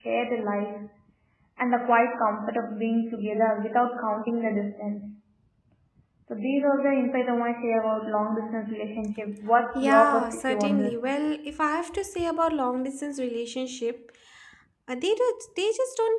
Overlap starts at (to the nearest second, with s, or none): 10 s